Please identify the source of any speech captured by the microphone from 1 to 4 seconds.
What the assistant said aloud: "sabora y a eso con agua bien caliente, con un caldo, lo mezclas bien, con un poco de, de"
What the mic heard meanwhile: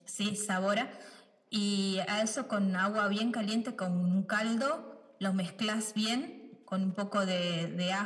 echo only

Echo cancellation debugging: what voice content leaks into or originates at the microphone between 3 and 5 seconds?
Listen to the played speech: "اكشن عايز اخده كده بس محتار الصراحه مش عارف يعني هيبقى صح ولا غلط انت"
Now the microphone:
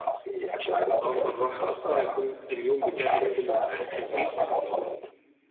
both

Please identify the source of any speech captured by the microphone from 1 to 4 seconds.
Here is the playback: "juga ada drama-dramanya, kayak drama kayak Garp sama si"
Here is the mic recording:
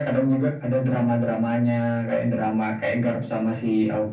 echo only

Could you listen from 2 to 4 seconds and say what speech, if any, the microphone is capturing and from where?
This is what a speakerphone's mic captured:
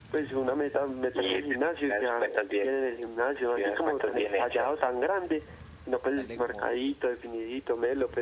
echo only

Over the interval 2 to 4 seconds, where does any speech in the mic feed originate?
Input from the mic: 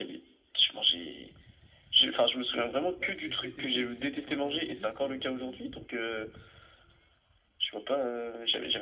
both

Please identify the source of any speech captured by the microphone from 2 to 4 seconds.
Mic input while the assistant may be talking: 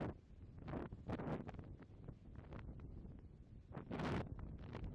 neither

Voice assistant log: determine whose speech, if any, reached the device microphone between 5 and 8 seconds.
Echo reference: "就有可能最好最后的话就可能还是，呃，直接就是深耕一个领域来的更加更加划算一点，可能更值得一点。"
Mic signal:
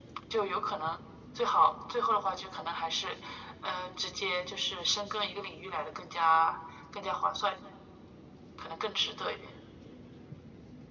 echo only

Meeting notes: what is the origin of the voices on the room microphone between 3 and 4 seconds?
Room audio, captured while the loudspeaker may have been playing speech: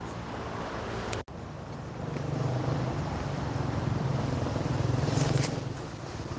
neither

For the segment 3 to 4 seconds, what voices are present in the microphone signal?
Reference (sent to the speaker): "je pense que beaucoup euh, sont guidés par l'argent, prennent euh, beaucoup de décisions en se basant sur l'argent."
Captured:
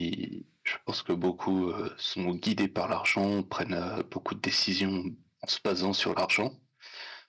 echo only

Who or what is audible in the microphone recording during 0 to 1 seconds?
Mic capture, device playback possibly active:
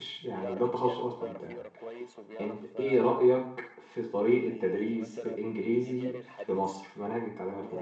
both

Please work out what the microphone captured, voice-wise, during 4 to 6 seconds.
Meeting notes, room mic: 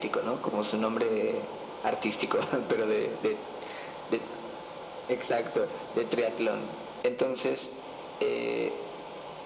echo only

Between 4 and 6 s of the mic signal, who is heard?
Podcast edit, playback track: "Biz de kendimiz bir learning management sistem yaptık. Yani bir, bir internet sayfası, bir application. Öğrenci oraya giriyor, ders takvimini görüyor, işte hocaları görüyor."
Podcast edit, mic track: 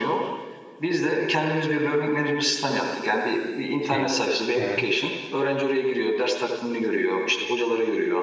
both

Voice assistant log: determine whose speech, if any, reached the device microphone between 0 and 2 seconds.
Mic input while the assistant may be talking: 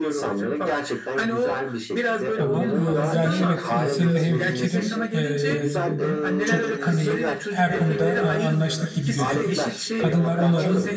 echo only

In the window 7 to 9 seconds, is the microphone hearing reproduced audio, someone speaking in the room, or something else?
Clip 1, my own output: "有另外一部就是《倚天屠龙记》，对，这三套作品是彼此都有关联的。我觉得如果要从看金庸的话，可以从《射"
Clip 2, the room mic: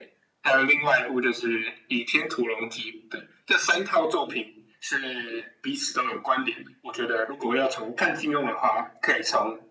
echo only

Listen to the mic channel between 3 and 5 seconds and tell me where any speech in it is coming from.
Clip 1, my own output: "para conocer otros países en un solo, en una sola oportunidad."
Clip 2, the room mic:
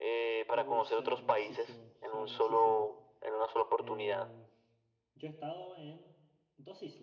both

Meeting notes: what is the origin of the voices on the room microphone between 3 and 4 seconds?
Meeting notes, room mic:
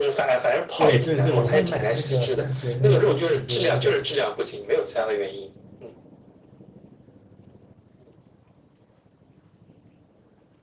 both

